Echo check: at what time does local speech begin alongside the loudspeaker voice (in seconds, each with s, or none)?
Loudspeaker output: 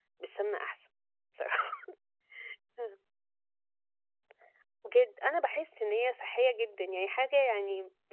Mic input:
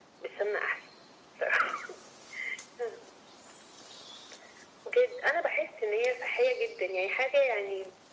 none